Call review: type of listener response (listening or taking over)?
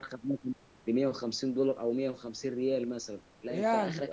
listening